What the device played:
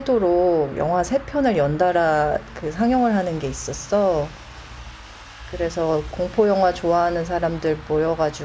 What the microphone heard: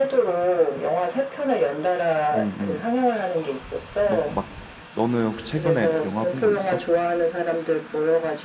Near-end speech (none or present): present